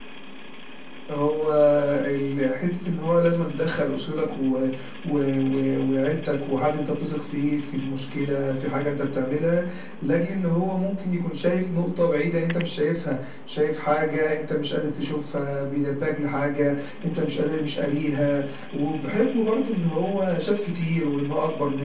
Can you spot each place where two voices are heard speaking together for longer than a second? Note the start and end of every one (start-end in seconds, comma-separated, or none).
none